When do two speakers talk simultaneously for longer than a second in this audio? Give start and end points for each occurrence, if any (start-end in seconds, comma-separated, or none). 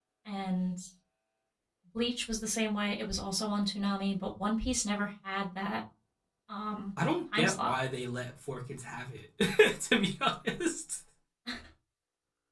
none